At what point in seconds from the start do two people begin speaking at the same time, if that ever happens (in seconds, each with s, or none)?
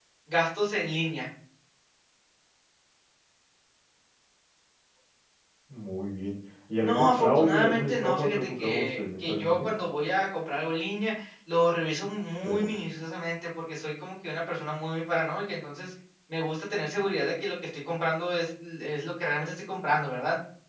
6.8 s